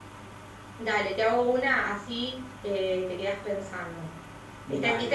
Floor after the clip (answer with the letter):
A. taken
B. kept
B